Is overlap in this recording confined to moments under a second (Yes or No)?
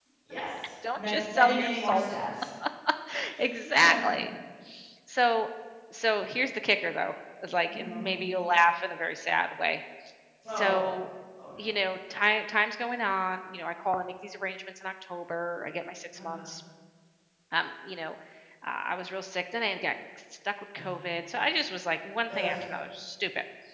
No